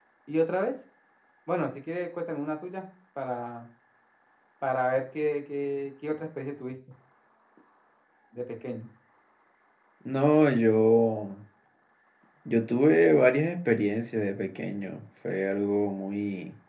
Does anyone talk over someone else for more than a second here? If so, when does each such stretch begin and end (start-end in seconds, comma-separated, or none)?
none